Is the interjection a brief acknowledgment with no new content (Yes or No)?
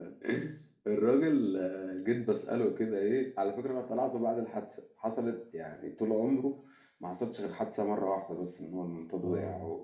Yes